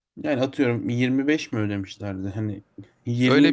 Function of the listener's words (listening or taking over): taking over